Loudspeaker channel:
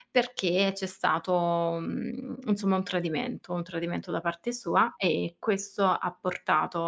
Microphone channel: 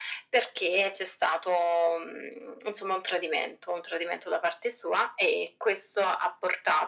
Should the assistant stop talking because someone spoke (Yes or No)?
No